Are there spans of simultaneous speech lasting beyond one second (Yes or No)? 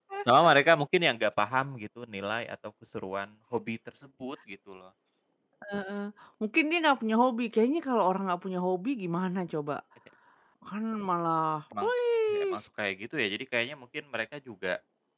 No